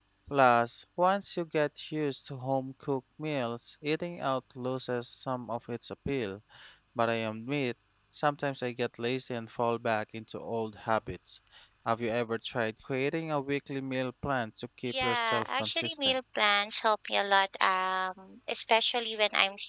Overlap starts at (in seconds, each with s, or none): 14.9 s